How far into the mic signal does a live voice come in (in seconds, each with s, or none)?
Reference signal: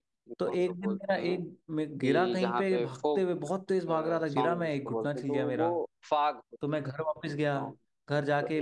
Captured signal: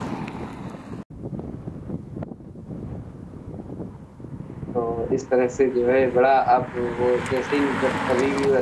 4.7 s